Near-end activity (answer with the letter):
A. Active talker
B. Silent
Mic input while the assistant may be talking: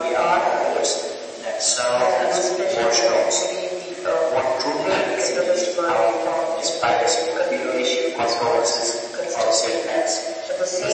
B